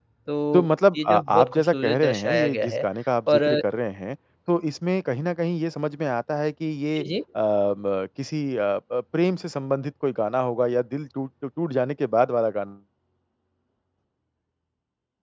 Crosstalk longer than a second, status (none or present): present